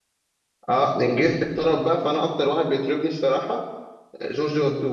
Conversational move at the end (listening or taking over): taking over